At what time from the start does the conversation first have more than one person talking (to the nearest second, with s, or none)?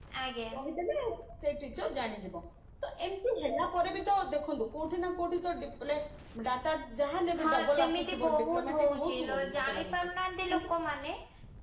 7 s